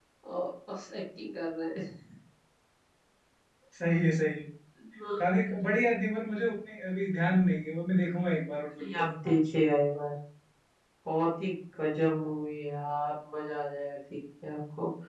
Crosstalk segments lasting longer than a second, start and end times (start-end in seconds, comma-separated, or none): none